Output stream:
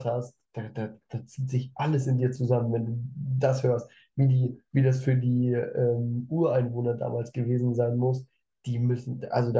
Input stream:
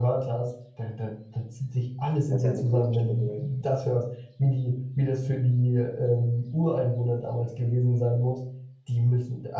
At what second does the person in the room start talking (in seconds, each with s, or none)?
2.2 s